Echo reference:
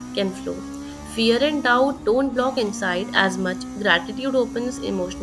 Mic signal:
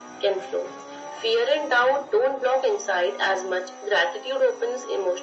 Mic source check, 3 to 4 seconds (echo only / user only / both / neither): echo only